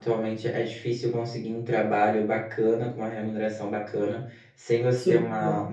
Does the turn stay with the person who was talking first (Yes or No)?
Yes